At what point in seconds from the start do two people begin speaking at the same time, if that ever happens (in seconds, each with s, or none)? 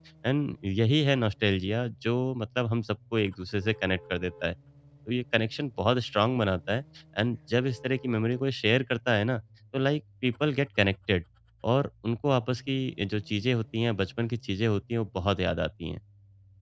none